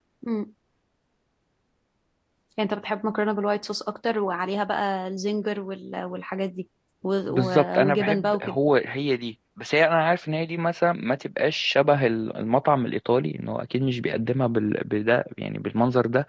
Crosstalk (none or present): present